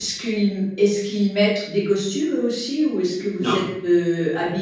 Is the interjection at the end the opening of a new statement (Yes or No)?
No